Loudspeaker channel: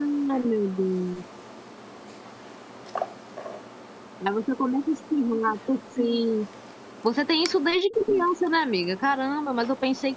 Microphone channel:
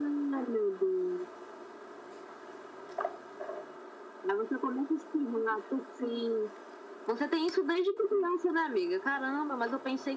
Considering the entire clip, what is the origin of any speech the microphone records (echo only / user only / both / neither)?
echo only